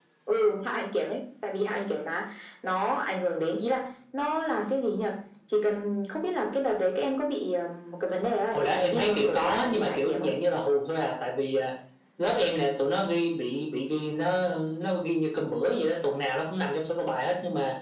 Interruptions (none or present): present